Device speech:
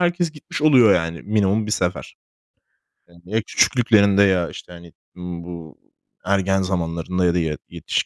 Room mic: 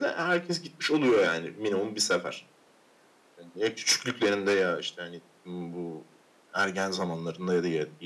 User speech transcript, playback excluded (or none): none